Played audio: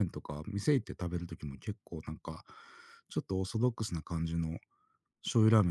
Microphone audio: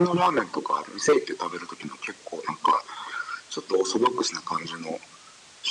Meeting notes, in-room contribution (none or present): none